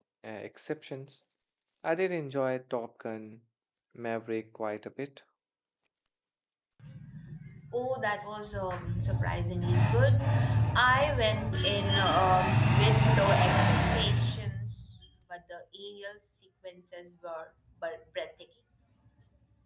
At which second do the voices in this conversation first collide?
none

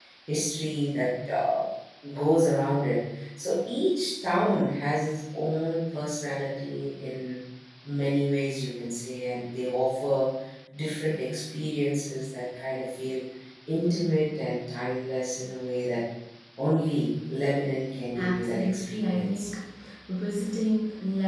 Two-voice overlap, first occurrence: 18 s

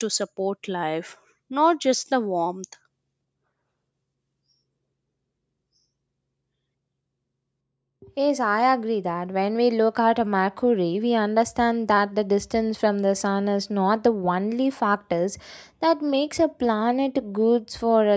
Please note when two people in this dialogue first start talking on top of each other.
none

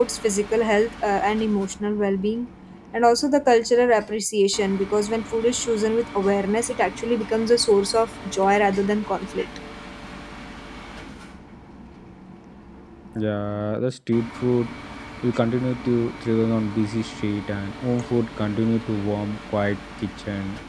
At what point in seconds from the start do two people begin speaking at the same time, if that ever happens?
none

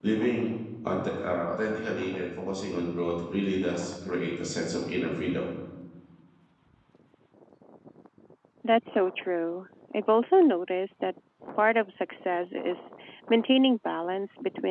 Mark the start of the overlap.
none

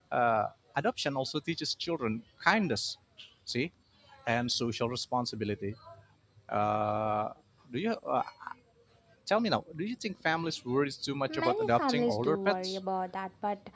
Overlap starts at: 11 s

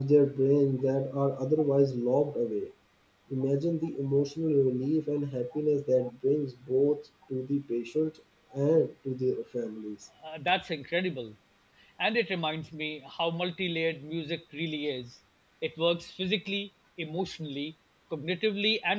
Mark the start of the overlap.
none

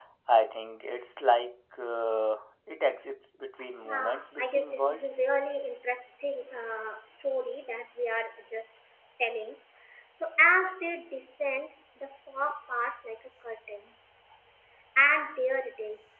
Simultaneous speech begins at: 4 s

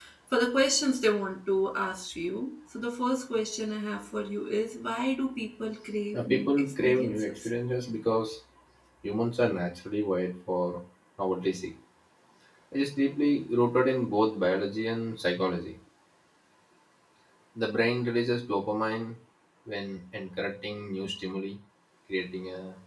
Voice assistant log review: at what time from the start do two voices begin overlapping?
6 s

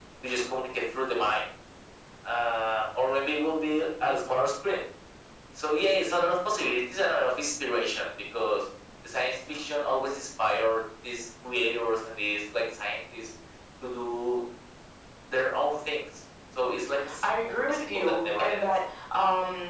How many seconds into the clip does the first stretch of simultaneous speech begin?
17 s

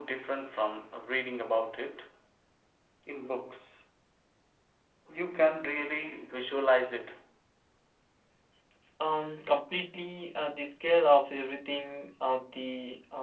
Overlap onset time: none

